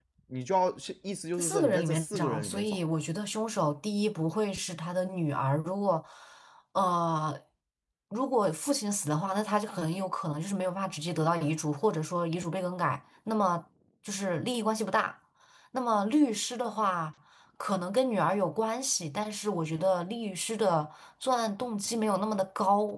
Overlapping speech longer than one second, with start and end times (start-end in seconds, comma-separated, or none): 1.4-2.8